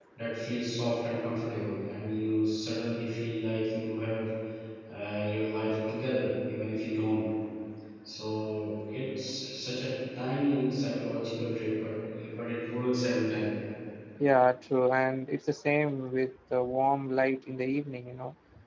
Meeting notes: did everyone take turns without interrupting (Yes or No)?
Yes